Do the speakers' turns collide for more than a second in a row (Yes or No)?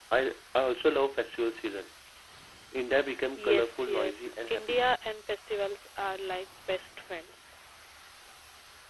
Yes